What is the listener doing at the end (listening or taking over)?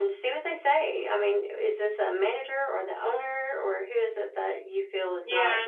taking over